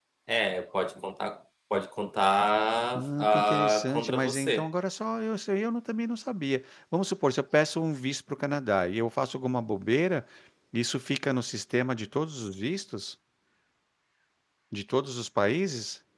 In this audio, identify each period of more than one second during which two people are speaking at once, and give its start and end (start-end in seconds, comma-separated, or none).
3.0-4.7